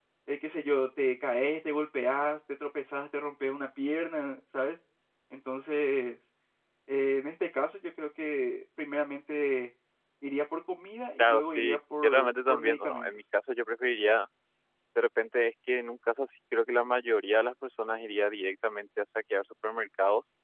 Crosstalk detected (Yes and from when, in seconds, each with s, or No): Yes, from 11.2 s